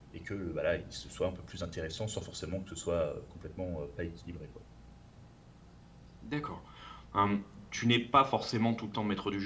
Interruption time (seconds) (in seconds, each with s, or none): none